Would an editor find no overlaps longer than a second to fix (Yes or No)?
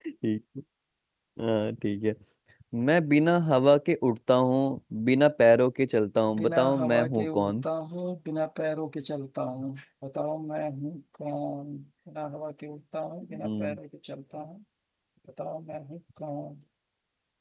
No